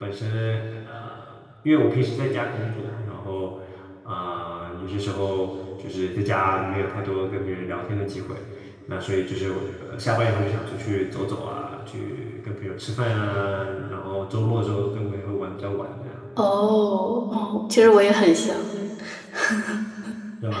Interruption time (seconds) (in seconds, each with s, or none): none